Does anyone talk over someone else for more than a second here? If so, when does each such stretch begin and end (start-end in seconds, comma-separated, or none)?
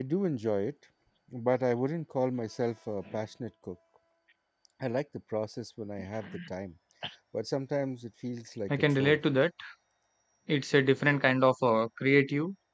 none